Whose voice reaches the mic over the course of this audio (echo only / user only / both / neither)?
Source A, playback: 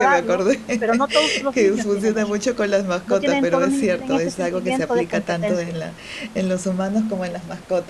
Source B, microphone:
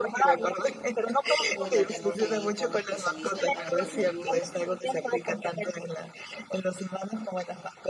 both